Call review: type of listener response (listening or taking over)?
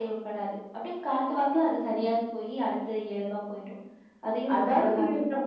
taking over